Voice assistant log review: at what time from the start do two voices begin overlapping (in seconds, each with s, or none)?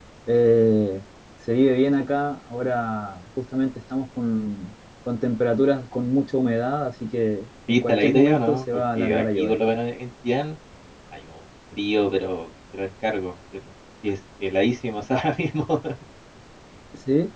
7.7 s